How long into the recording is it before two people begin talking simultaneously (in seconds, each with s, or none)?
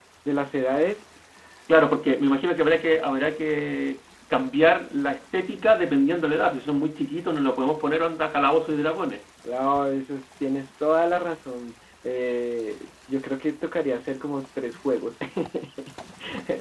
none